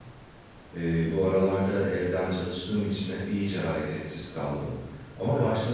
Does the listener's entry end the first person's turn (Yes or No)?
No